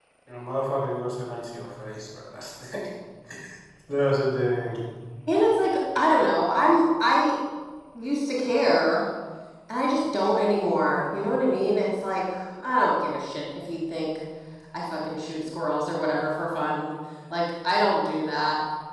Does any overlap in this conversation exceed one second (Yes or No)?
No